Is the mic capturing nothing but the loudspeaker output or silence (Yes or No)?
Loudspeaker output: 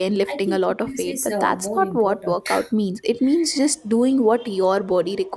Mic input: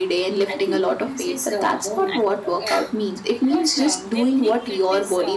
No